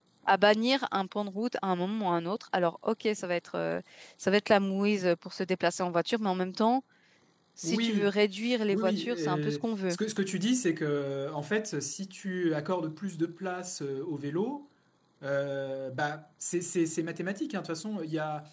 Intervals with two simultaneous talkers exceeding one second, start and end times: 8.7-10.0

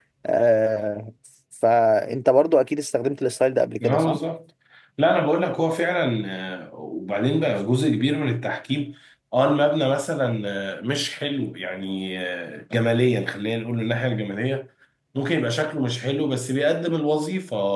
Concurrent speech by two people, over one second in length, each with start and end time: none

